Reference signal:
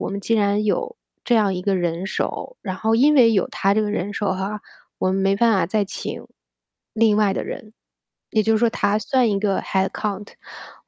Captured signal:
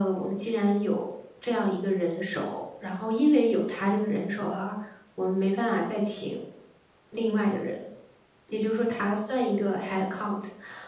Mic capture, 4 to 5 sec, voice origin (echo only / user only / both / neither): echo only